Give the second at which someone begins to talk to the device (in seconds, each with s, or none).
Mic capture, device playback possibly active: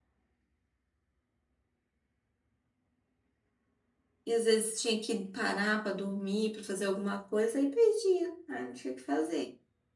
4.3 s